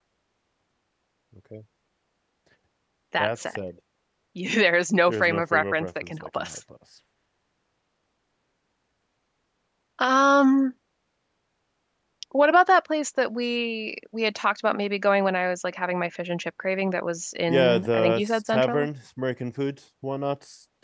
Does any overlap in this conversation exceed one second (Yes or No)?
Yes